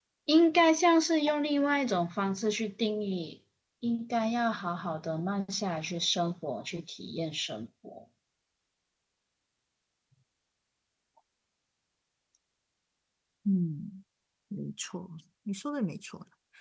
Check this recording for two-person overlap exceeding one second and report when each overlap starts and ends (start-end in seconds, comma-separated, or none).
none